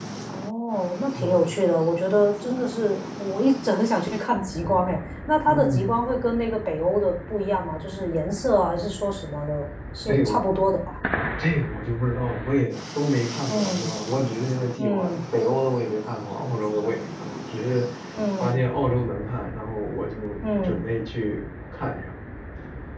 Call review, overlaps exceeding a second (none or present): none